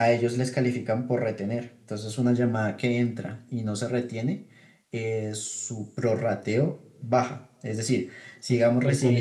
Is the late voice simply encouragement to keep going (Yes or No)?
No